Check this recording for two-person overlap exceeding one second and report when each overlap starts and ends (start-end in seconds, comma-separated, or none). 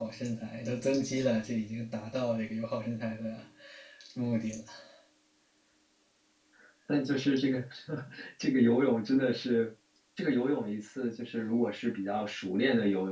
none